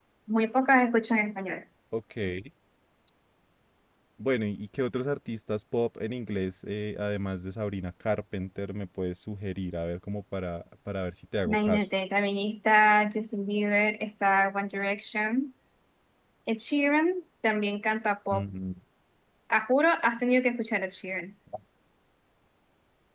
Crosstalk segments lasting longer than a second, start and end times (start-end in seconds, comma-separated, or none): none